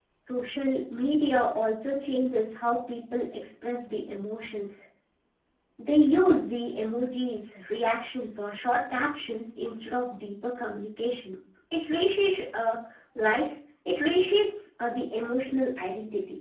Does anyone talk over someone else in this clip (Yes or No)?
No